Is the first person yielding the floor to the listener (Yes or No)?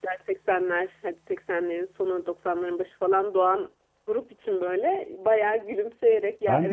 No